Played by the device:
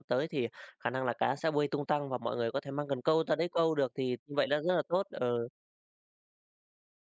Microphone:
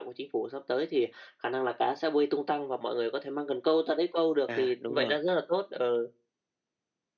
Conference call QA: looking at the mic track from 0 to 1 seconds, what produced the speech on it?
echo only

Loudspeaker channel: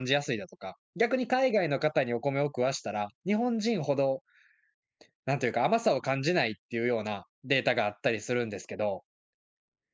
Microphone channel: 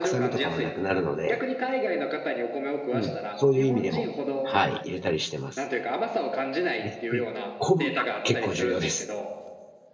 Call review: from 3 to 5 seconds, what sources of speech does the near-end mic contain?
both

